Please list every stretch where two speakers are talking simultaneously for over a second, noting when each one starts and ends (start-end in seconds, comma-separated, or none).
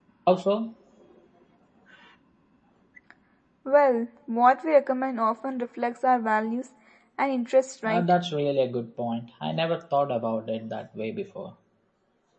none